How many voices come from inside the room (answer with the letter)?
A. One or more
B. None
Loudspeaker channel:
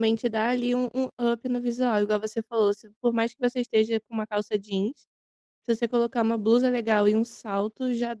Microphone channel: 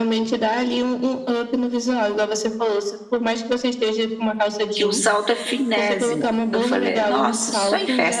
A